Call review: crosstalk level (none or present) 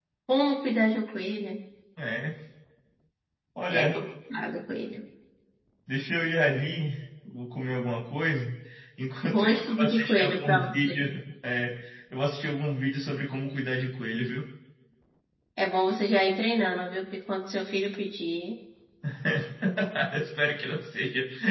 present